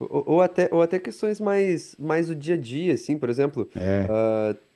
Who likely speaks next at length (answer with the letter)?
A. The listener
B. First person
B